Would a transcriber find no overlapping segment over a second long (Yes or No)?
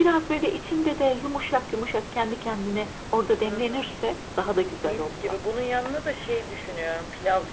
Yes